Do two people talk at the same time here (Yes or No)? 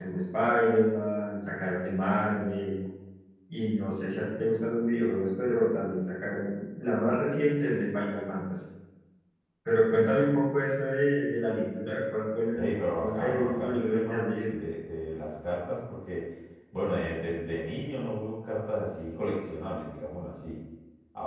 Yes